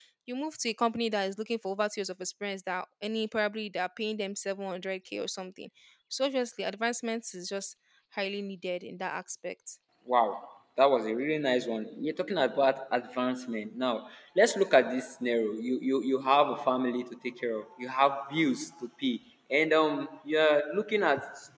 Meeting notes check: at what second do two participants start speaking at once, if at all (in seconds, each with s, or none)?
none